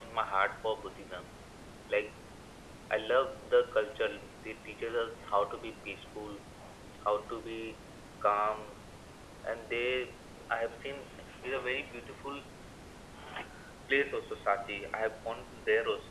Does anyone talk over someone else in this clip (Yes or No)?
No